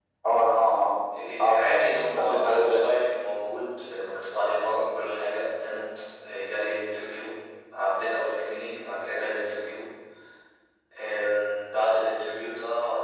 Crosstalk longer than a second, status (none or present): present